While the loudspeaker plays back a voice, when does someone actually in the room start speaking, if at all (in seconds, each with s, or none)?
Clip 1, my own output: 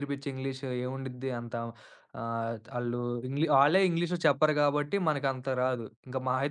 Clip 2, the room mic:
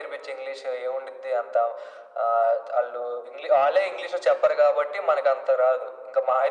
none